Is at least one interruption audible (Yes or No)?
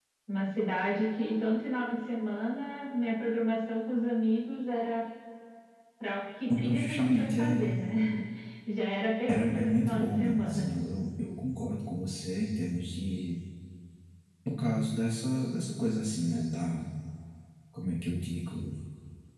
Yes